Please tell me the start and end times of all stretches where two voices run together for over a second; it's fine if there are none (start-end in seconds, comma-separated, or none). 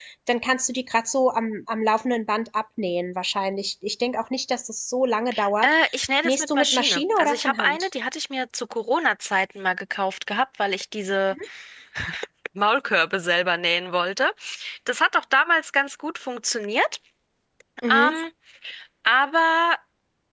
6.2-7.9